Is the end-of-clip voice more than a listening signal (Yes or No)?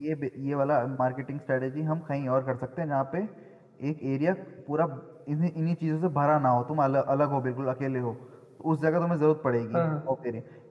No